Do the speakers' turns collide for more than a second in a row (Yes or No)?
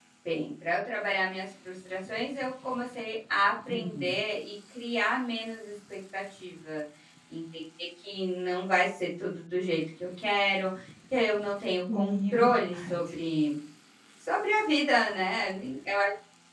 Yes